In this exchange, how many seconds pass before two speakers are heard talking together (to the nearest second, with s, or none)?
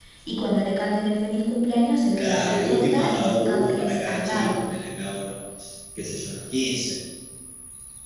2 s